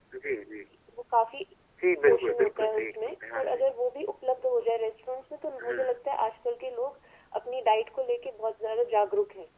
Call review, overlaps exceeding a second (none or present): present